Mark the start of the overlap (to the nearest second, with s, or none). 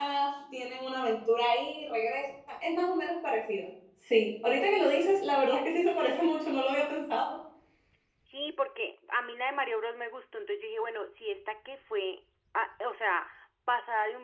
none